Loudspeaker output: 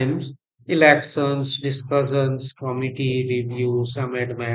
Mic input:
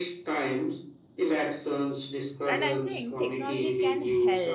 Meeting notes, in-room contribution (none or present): present